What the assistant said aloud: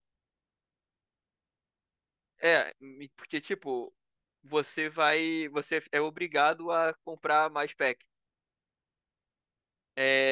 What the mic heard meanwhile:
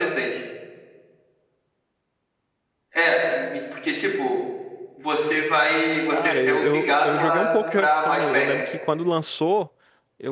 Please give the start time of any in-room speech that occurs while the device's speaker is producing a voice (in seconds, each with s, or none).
6.0 s